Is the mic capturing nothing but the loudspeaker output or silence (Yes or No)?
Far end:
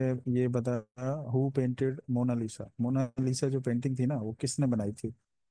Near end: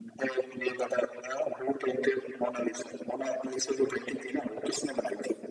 Yes